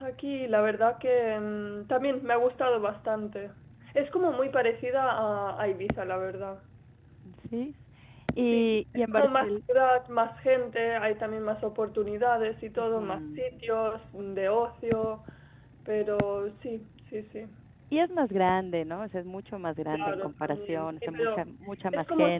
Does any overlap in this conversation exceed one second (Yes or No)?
Yes